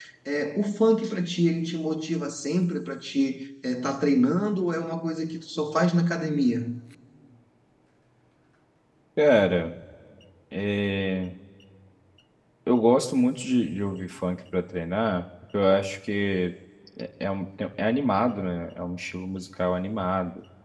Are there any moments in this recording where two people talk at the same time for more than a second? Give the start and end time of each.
none

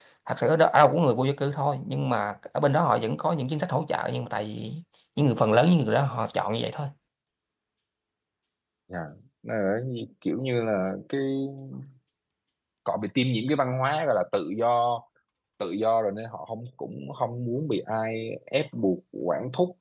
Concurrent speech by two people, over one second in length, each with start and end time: none

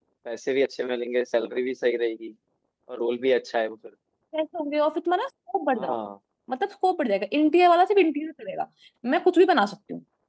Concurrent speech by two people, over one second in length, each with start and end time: none

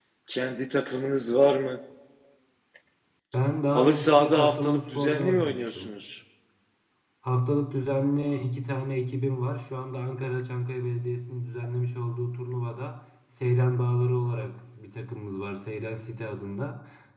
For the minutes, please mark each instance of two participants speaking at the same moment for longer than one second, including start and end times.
3.7-5.9

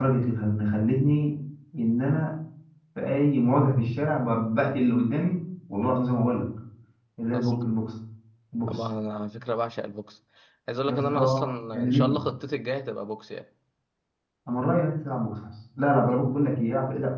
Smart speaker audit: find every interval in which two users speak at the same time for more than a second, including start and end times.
10.9-12.2

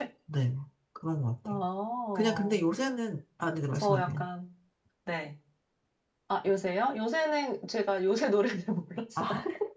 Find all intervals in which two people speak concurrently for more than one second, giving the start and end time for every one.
none

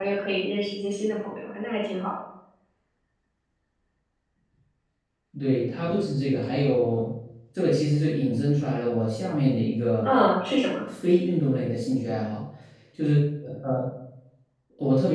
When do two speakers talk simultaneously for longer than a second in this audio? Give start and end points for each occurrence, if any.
none

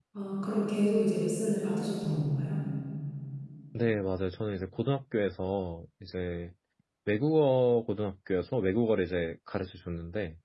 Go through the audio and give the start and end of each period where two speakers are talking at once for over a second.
none

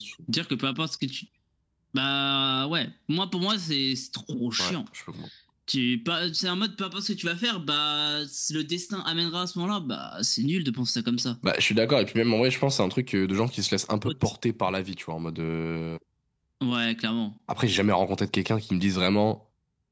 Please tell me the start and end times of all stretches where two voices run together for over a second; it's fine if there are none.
none

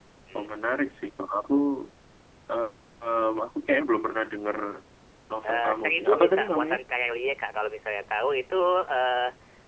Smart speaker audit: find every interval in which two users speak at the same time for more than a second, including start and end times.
5.4-6.8

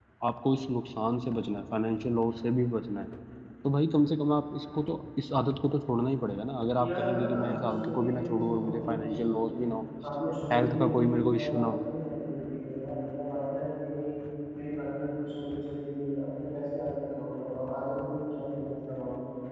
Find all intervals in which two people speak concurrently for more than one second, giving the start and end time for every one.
6.8-9.6, 10.5-11.7

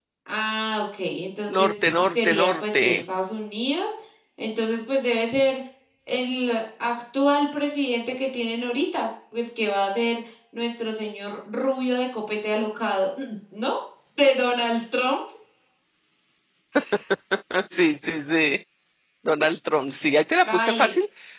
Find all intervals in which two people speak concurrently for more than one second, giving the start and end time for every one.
1.5-3.0

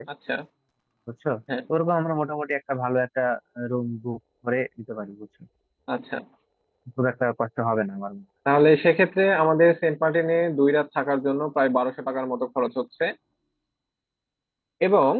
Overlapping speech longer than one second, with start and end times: none

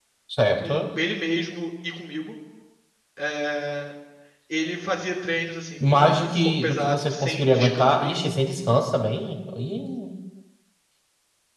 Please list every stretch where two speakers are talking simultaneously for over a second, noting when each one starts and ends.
5.8-8.3

